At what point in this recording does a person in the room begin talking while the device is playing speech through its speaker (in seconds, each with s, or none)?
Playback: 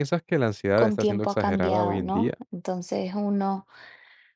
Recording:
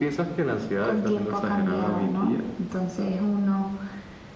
none